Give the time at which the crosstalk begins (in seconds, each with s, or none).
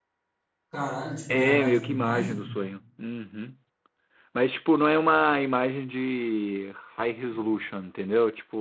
1.3 s